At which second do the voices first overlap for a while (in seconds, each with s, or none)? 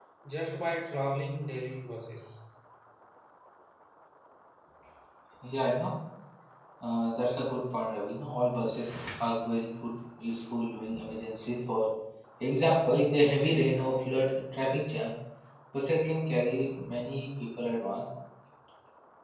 none